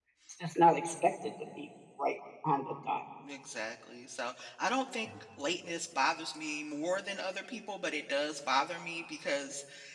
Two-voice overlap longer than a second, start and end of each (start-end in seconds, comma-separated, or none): none